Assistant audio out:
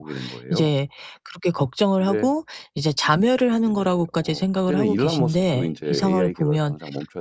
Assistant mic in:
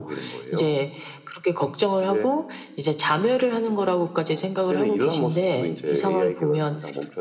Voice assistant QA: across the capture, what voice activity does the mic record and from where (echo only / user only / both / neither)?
echo only